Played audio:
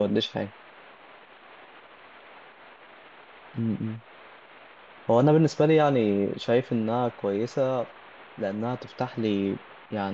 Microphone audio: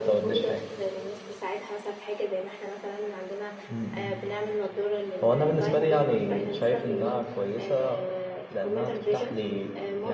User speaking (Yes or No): Yes